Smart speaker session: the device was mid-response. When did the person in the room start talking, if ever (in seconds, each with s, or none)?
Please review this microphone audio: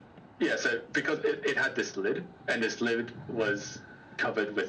none